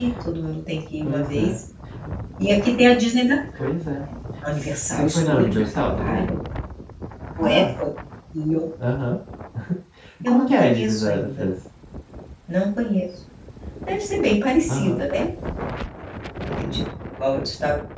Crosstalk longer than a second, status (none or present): present